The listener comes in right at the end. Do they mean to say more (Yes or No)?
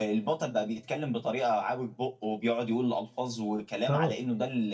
No